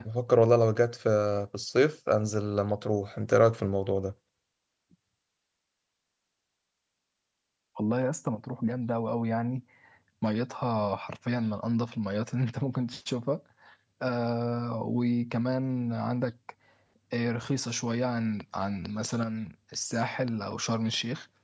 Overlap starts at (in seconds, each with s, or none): none